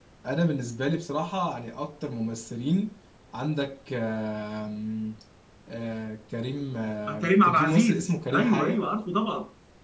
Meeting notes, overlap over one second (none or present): present